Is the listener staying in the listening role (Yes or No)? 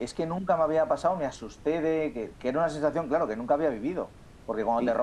Yes